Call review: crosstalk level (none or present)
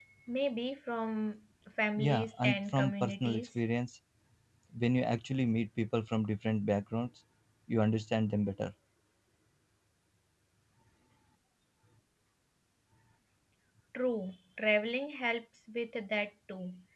present